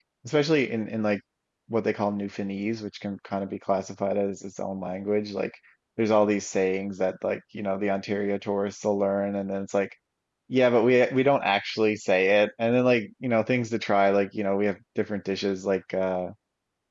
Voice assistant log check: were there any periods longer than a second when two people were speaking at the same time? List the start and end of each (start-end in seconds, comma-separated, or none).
none